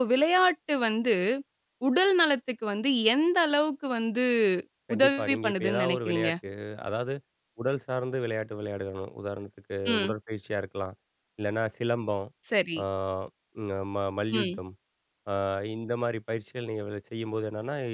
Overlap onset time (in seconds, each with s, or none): 4.9 s